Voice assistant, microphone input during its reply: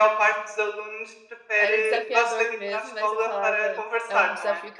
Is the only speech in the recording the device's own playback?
No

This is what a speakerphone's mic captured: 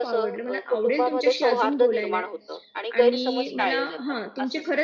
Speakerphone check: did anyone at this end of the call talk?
Yes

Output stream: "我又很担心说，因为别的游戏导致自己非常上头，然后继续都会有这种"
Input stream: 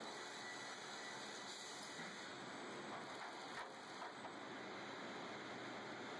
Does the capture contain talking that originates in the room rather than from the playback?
No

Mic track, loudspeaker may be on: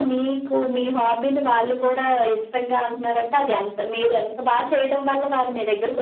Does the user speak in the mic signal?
No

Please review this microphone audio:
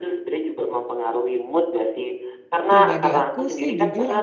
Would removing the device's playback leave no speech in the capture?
No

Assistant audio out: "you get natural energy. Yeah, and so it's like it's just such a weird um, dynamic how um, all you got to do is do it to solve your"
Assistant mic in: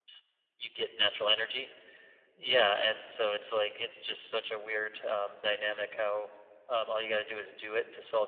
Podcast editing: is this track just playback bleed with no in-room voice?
Yes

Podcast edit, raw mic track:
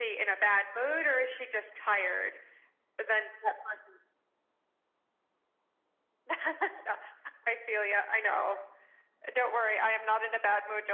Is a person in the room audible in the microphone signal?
No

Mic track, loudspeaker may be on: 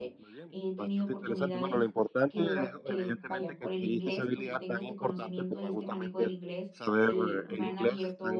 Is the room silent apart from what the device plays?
No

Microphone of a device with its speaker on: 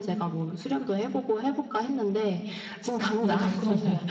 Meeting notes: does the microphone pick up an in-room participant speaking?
Yes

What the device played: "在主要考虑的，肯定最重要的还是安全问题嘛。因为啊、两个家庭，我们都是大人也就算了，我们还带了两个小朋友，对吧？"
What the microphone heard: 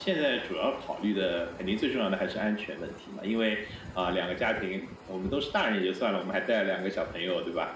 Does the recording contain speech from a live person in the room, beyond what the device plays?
No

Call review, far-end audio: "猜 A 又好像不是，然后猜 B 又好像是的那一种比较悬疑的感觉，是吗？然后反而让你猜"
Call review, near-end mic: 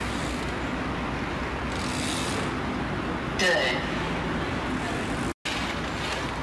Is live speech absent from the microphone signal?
No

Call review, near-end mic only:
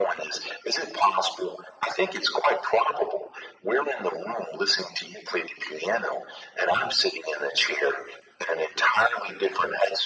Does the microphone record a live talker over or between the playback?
No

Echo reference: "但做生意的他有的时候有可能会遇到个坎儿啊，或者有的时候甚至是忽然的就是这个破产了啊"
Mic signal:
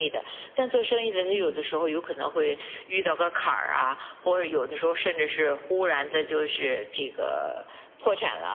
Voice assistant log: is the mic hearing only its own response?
No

